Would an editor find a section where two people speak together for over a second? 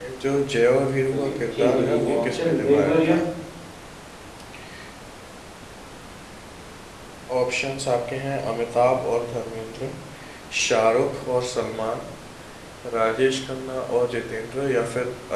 Yes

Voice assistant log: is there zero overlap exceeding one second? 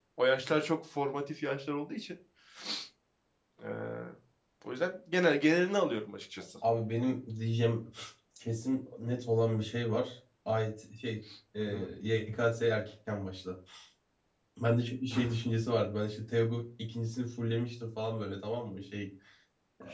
Yes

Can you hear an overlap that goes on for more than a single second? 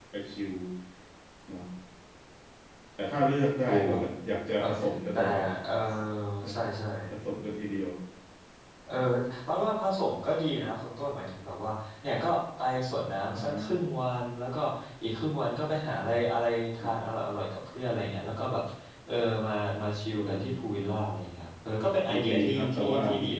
Yes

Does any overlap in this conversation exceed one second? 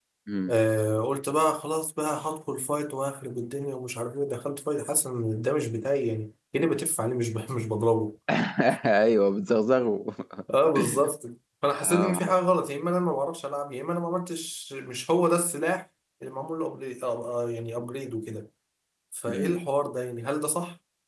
No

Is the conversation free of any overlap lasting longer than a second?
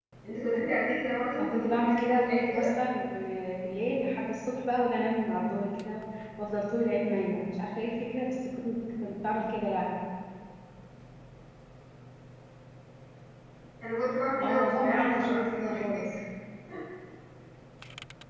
No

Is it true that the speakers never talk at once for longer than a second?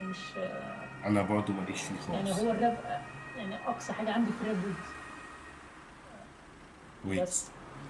Yes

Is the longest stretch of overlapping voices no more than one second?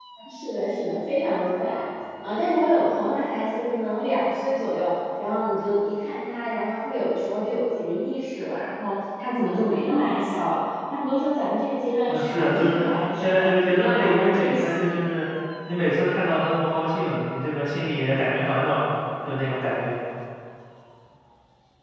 No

